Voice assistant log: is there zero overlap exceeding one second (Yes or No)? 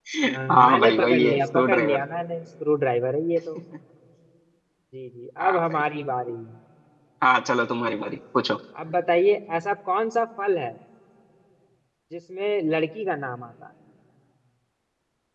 No